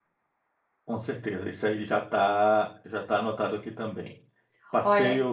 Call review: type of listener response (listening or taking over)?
listening